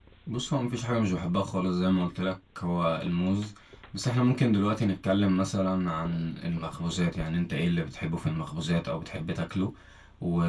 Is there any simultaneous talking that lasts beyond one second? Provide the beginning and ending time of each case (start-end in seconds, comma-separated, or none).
none